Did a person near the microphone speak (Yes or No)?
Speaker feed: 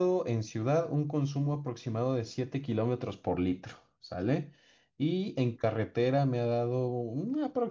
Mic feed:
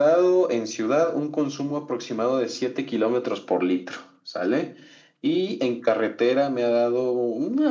No